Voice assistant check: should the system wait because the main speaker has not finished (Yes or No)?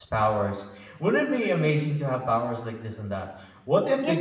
Yes